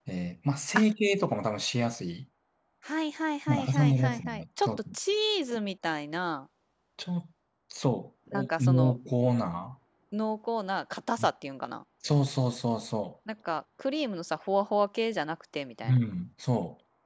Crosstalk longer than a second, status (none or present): present